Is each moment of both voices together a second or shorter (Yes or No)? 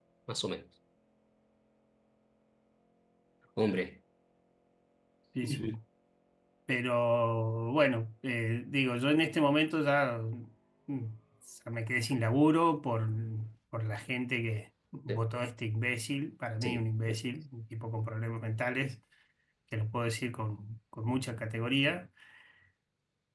Yes